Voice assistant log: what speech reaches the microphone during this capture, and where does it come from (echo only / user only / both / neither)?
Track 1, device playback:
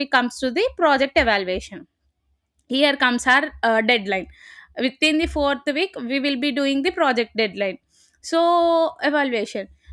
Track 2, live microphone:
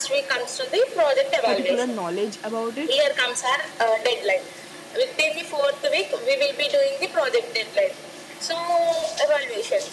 both